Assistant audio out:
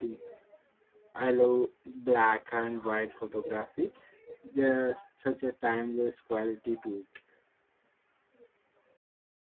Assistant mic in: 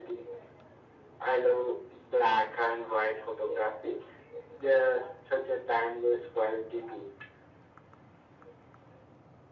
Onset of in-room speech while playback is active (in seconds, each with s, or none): none